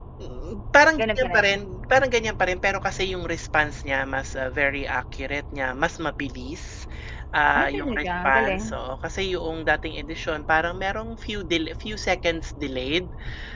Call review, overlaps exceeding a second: present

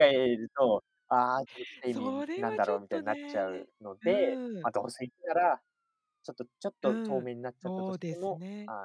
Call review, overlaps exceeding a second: present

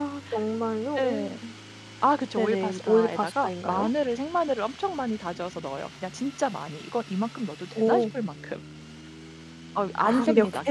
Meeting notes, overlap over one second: present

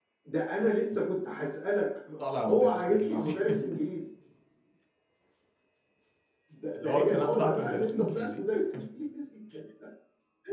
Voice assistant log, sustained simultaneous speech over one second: present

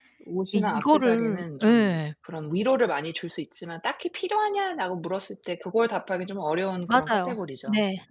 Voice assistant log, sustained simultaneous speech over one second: present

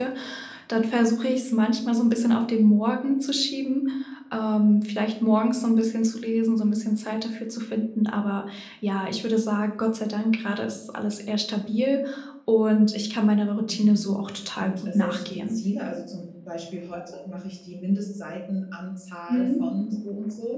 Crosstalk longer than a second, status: present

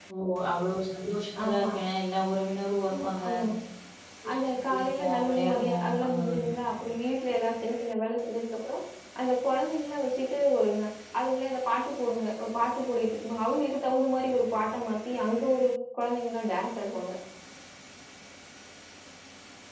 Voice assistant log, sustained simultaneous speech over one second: present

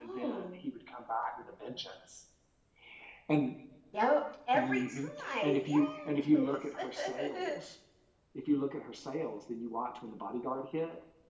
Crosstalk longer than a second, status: present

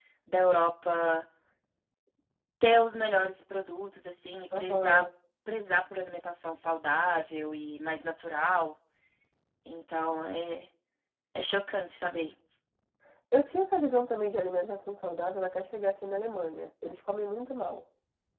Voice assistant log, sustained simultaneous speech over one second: none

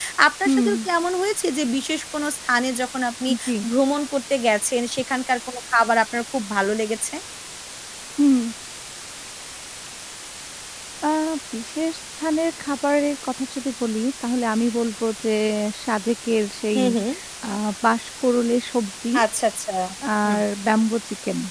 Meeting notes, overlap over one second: none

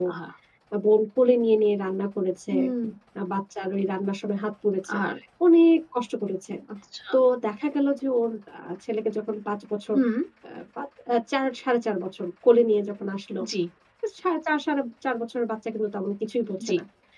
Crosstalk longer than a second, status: none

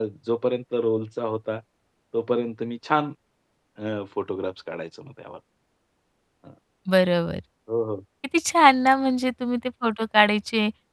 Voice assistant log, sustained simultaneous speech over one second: none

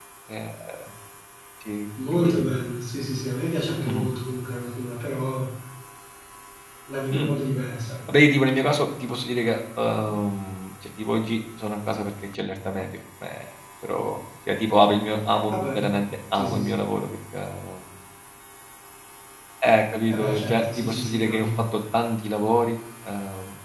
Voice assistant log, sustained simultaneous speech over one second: present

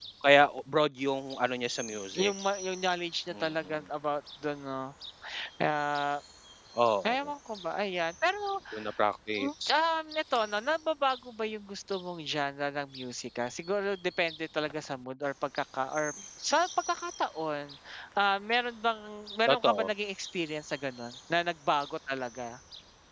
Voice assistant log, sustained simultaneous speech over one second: none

